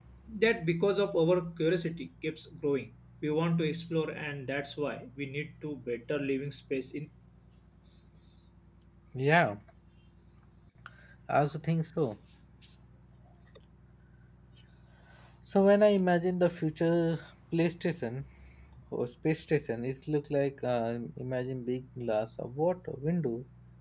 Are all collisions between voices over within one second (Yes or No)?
Yes